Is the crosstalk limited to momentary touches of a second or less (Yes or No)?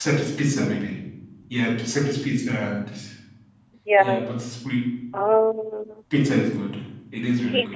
Yes